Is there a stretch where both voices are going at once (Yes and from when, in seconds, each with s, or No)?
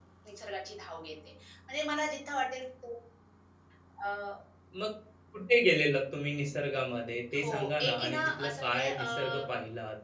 Yes, from 7.3 s